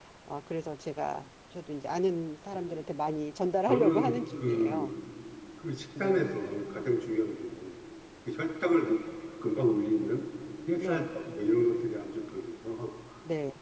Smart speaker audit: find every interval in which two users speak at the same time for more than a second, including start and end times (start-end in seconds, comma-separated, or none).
3.7-4.9